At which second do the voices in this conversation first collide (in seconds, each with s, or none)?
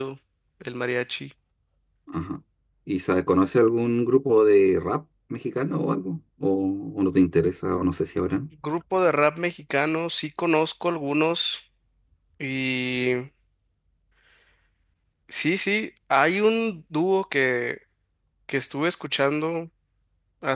none